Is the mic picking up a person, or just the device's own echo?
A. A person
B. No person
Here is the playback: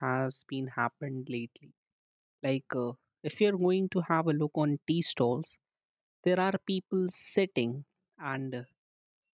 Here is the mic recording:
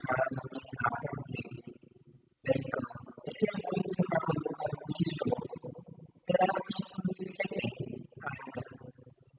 B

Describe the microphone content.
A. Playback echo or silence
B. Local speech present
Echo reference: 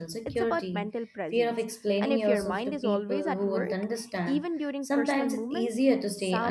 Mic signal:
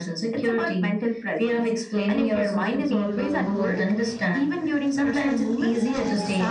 A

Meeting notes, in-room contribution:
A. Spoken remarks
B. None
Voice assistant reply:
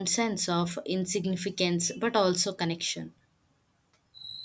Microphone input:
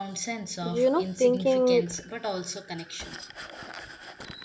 A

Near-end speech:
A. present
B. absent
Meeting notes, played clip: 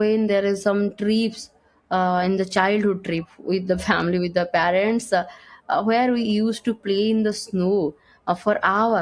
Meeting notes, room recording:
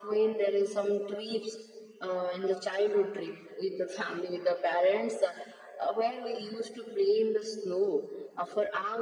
B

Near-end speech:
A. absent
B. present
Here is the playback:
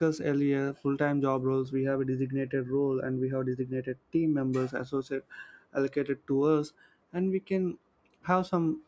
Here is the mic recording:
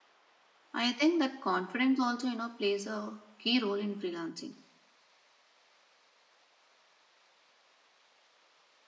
B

